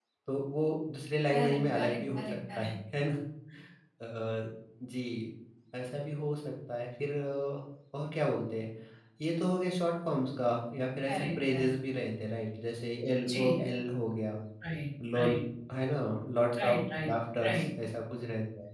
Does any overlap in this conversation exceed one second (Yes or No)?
Yes